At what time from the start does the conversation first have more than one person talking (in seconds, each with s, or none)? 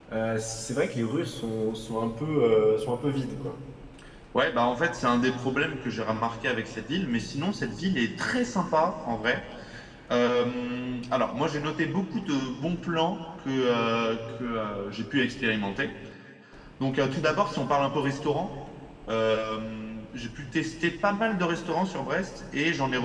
none